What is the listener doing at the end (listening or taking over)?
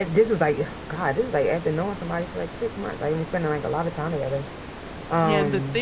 taking over